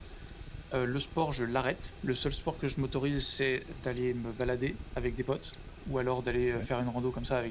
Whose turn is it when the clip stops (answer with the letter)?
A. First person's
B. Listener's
A